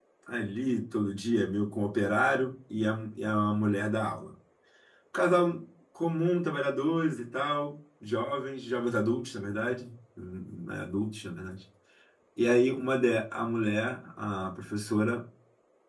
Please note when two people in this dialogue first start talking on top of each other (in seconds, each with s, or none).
none